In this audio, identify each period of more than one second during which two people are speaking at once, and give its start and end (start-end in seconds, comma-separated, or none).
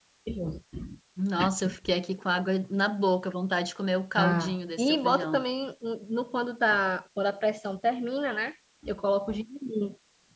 4.2-5.4